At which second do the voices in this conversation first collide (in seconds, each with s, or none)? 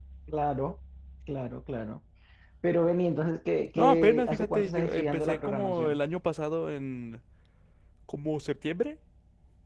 3.8 s